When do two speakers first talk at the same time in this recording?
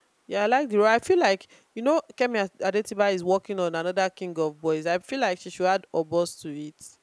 none

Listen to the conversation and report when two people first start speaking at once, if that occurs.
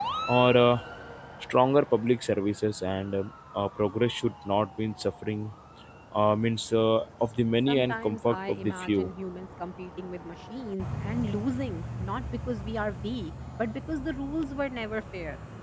7.7 s

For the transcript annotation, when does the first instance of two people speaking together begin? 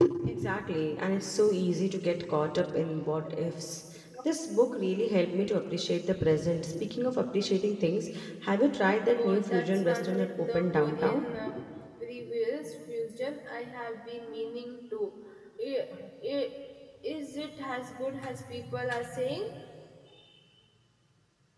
9.2 s

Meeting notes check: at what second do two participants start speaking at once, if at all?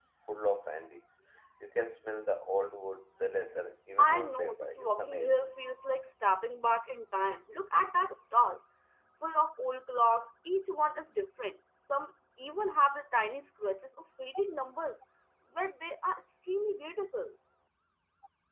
4.0 s

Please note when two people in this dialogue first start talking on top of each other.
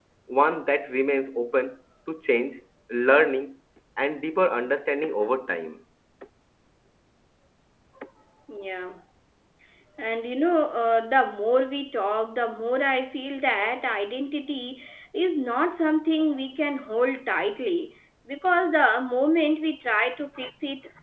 none

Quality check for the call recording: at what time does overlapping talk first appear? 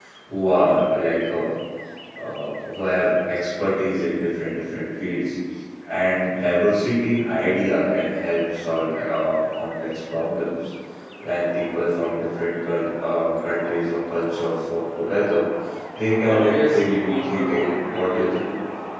16.2 s

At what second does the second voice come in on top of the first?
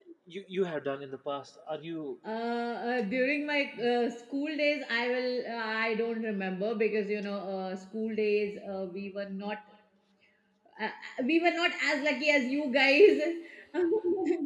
none

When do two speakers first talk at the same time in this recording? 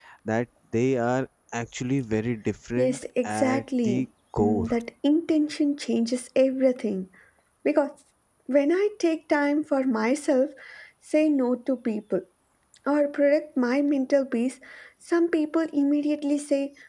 2.8 s

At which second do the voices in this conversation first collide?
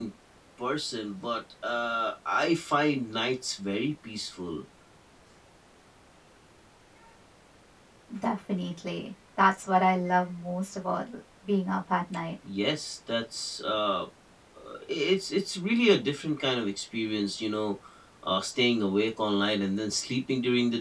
none

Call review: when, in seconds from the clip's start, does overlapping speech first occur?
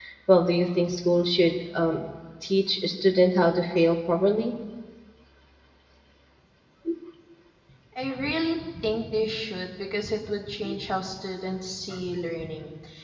none

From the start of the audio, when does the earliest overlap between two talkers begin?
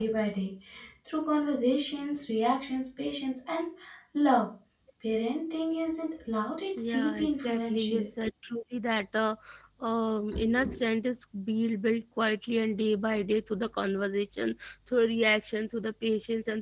6.8 s

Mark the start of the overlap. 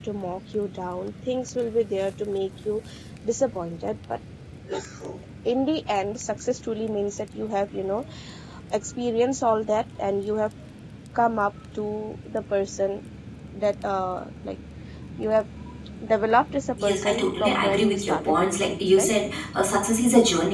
16.8 s

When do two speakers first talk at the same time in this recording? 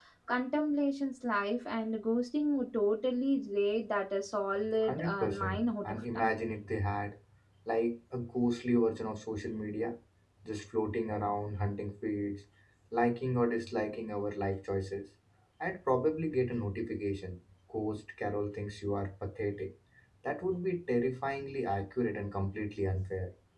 4.7 s

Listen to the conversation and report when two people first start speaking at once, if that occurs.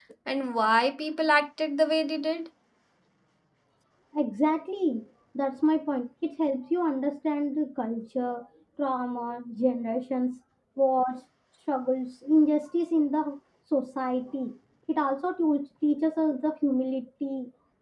none

